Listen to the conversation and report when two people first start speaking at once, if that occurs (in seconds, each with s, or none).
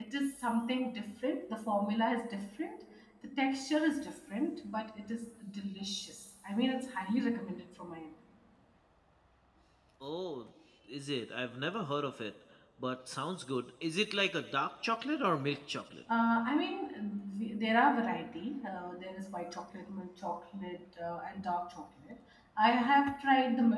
none